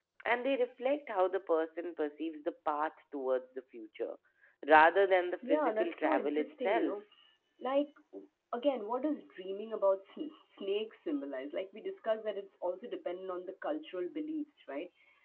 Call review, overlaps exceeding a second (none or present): present